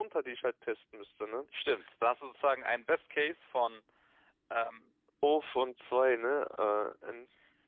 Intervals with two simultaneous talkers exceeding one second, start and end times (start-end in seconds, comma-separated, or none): none